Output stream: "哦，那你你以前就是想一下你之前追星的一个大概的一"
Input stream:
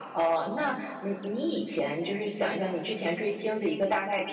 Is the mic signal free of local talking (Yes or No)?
Yes